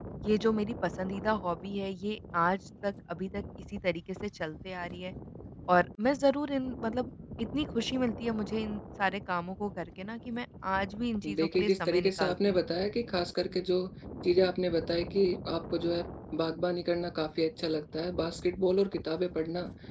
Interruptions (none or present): present